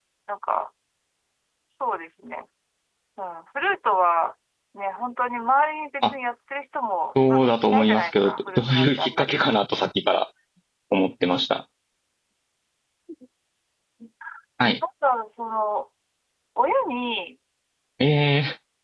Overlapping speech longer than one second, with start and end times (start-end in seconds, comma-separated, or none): 7.3-9.4